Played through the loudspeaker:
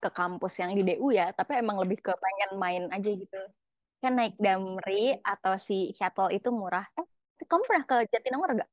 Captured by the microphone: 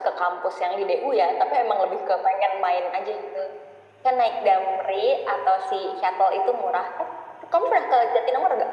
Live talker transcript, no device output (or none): none